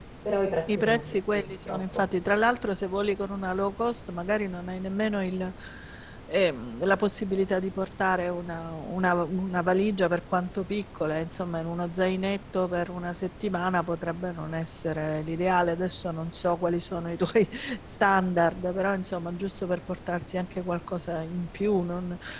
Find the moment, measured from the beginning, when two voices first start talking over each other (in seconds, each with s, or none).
0.7 s